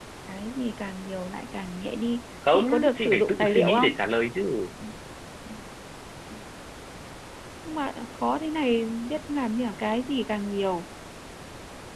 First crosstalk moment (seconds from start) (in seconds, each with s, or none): 2.4 s